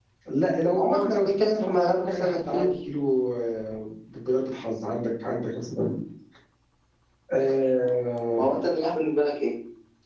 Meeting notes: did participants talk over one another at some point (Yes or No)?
Yes